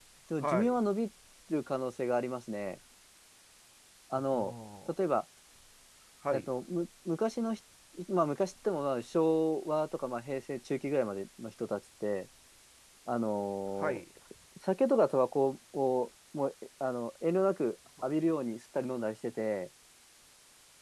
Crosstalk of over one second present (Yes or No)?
No